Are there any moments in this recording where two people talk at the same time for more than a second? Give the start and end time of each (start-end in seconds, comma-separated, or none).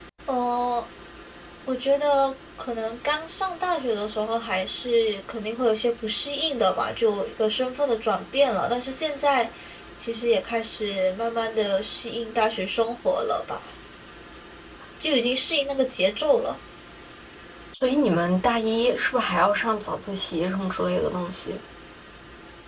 none